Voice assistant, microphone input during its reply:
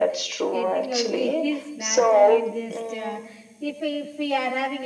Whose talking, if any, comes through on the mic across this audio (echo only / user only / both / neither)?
both